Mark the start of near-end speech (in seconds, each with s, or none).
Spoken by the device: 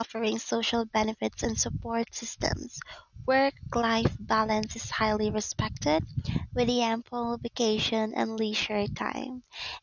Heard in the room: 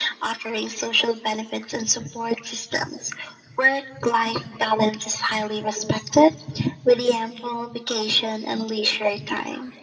none